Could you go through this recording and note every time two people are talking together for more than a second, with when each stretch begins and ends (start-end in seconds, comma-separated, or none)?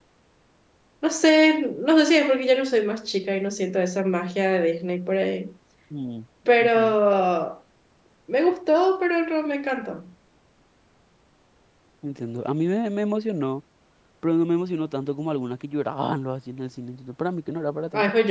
none